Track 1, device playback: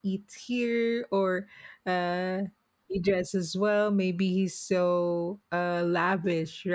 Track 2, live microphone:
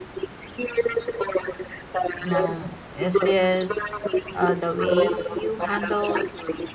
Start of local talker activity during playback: 2.2 s

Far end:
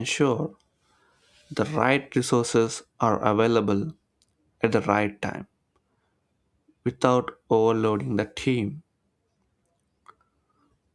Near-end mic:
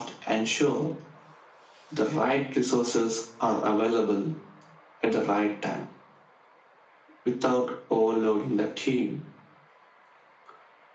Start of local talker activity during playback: none

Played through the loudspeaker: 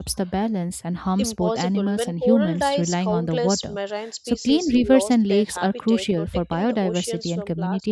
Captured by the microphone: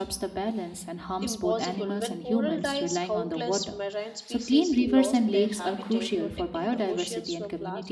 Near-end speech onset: none

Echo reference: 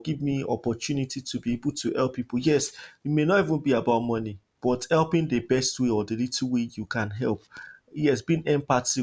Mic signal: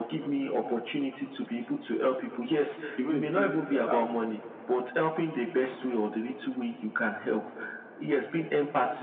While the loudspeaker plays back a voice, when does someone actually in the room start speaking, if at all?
3.0 s

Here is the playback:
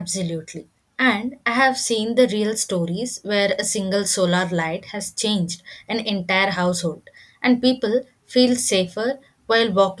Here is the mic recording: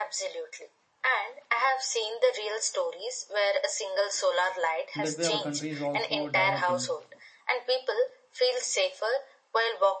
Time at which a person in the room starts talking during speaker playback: 5.0 s

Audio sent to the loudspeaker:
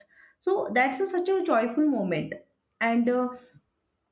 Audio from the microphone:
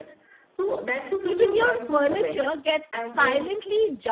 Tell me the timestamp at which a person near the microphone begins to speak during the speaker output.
1.2 s

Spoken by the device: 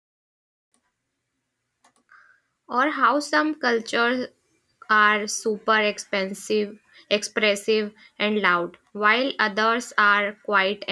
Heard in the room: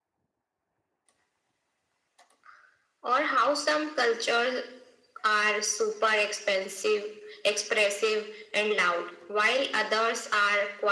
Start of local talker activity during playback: none

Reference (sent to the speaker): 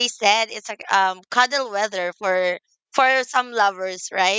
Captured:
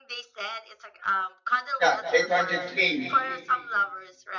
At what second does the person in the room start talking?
1.8 s

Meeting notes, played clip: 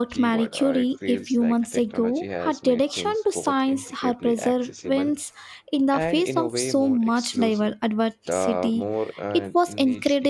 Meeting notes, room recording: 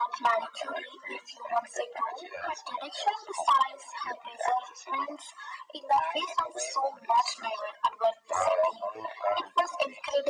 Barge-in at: none

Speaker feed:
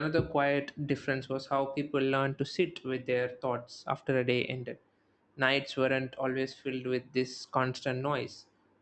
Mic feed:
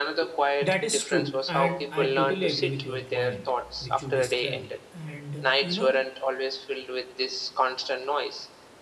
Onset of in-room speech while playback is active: 0.6 s

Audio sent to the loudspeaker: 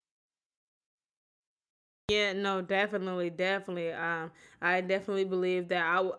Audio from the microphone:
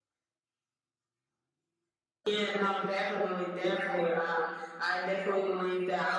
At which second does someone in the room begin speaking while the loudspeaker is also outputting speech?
none

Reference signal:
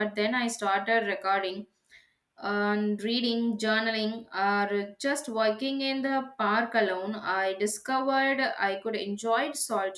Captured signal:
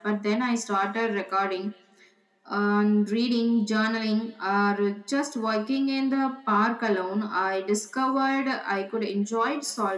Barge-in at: none

